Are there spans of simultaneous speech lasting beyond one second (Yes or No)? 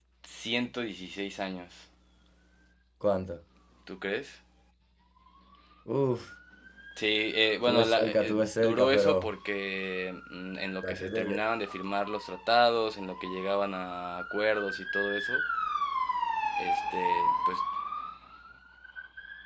Yes